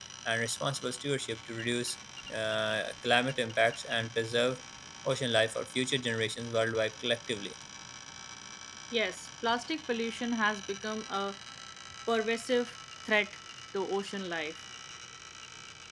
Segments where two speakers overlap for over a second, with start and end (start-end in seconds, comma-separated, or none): none